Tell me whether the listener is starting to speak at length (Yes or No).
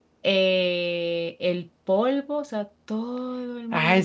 Yes